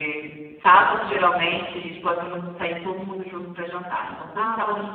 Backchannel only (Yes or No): No